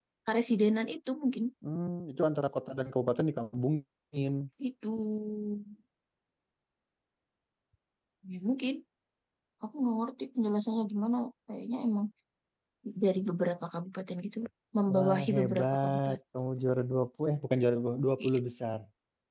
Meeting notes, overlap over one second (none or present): present